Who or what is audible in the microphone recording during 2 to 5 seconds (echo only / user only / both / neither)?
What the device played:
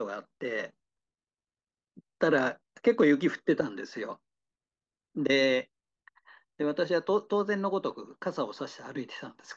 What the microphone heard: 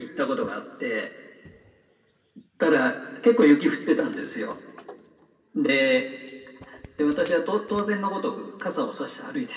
echo only